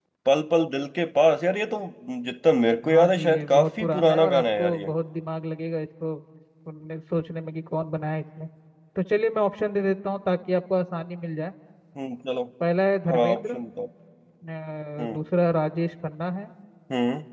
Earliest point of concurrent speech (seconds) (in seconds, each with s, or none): 2.8 s